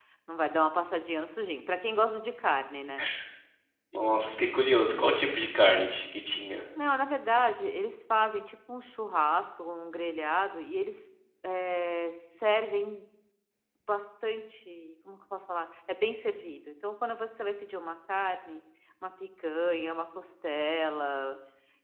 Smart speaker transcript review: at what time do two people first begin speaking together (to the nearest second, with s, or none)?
none